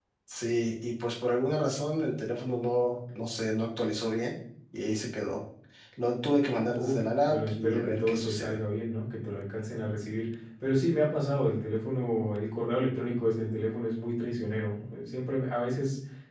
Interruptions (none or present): present